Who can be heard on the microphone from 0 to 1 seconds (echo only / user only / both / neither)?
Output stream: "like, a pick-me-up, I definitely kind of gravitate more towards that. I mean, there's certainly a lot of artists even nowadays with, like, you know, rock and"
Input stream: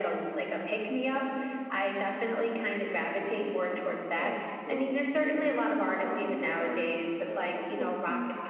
echo only